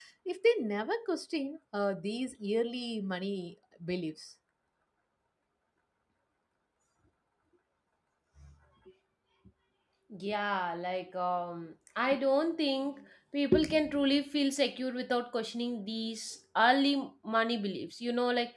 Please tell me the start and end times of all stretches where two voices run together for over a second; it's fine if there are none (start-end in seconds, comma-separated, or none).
none